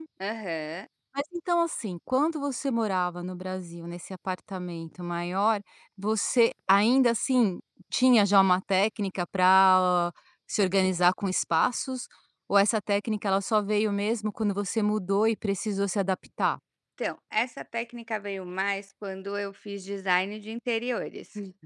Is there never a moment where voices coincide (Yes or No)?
Yes